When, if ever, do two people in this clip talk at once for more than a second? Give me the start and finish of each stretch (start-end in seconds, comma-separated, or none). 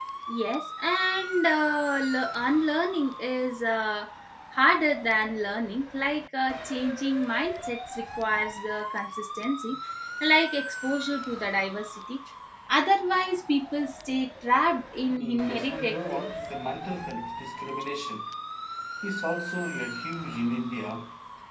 15.1-16.3